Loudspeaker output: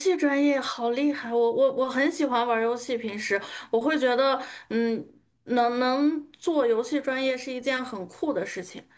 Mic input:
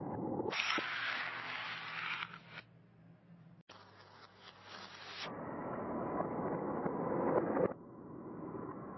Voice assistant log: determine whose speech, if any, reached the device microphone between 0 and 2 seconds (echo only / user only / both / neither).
neither